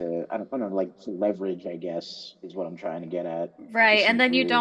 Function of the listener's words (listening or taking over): taking over